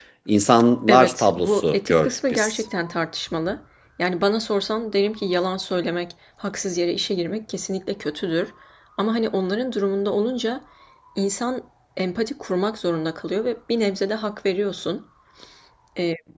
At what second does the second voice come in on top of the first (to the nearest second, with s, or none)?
1 s